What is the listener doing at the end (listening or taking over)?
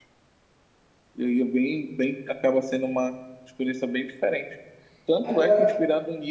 listening